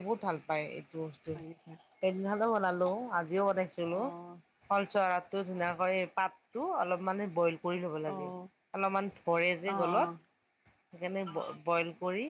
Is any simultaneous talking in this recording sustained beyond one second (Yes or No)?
No